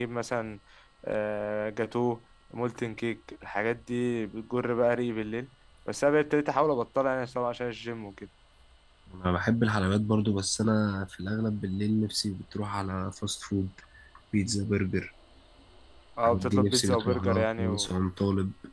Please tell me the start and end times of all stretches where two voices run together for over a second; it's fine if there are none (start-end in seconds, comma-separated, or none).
16.2-17.9